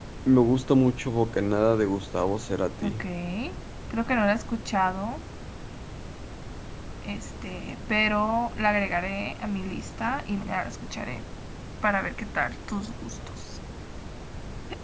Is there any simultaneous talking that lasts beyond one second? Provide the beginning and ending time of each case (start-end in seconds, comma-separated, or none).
none